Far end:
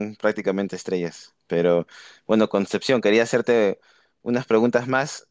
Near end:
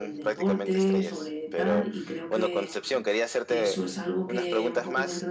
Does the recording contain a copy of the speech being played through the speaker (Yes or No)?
Yes